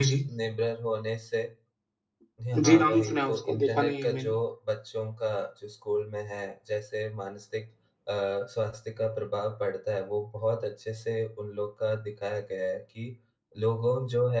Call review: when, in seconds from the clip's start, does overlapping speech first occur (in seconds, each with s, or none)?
2.6 s